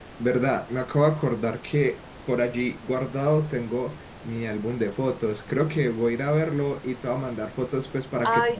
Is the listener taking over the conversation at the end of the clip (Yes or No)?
Yes